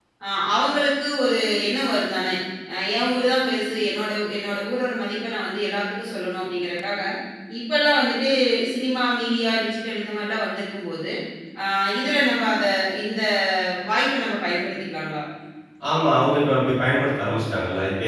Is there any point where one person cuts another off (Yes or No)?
No